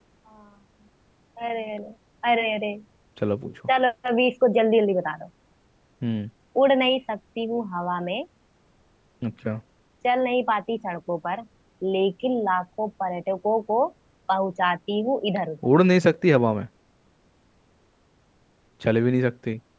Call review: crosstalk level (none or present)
none